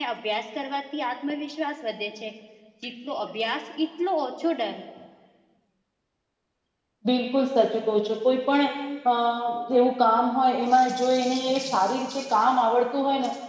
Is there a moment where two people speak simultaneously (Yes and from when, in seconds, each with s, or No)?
No